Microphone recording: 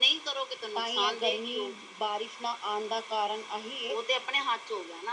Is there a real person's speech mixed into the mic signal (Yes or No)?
Yes